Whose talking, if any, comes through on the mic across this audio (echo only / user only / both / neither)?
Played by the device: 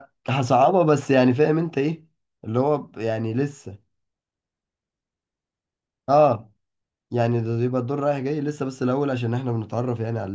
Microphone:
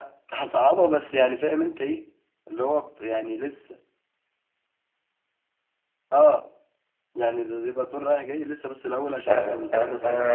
both